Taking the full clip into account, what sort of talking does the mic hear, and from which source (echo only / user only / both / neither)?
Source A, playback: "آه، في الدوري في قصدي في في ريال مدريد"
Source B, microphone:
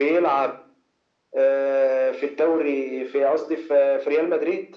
echo only